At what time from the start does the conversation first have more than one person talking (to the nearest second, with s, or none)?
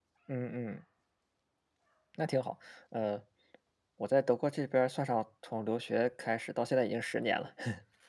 none